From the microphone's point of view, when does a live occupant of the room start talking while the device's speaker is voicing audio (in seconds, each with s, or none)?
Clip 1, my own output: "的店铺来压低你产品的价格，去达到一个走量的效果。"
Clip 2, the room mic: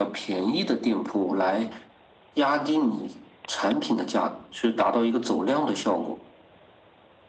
none